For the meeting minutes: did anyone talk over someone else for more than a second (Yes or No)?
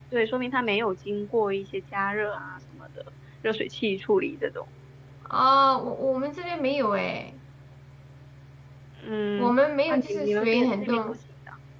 Yes